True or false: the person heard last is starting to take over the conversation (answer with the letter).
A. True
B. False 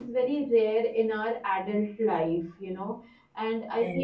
B